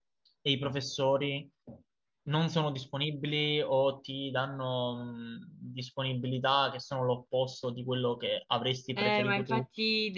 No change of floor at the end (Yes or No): No